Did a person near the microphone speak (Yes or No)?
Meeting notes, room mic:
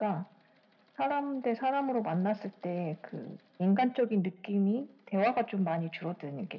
No